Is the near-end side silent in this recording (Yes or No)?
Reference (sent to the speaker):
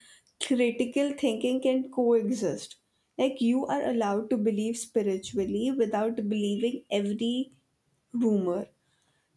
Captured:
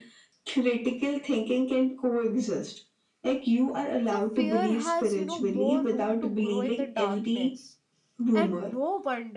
No